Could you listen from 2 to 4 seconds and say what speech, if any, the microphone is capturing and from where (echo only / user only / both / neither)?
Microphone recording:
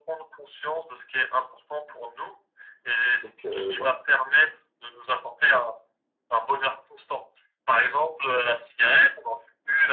both